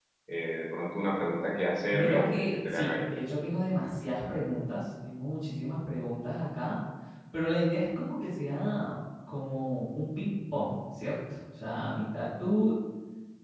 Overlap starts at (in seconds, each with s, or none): 1.9 s